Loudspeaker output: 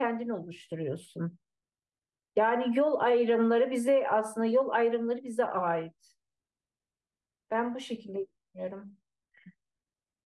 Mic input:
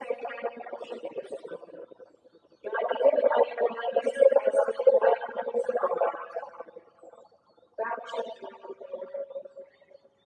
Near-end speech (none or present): none